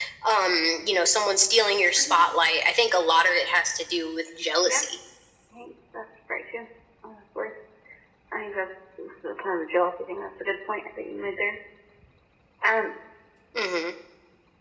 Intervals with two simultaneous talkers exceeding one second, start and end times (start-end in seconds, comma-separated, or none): none